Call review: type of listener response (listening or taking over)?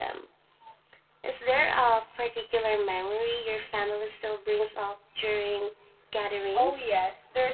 taking over